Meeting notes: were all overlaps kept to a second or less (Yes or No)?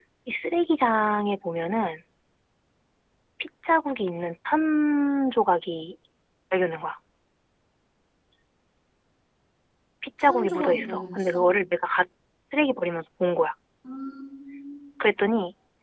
No